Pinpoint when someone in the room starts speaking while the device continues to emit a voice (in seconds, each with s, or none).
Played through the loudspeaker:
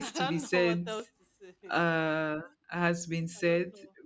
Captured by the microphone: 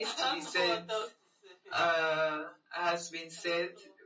none